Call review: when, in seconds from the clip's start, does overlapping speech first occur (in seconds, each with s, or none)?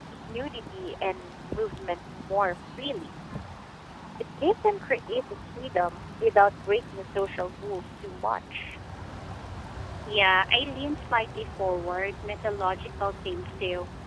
none